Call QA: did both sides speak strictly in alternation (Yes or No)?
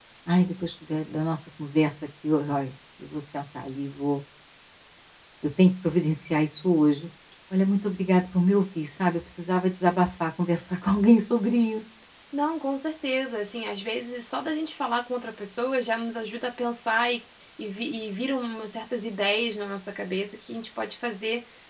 Yes